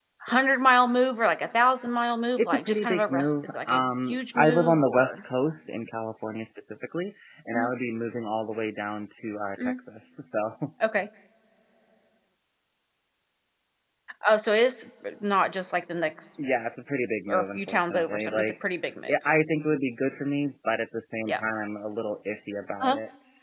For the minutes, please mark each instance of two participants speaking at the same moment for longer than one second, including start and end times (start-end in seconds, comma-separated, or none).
2.4-5.2, 17.3-18.5